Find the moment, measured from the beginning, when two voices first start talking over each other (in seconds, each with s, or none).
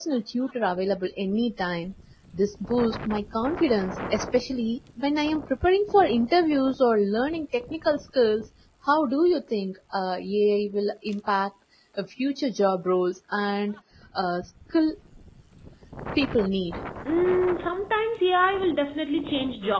none